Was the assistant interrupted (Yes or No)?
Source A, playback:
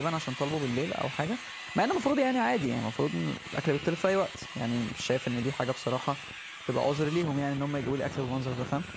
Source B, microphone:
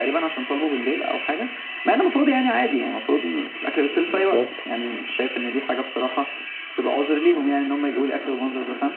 Yes